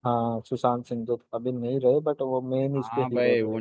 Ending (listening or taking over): taking over